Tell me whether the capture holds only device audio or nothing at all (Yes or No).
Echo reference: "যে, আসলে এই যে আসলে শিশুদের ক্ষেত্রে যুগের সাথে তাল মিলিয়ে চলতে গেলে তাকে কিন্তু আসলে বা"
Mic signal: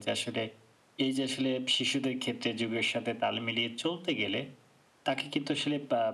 Yes